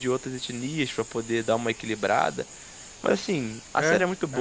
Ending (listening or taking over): listening